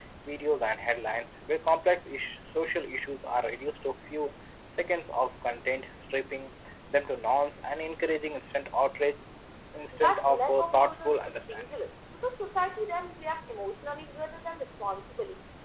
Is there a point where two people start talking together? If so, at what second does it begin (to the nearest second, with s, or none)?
10 s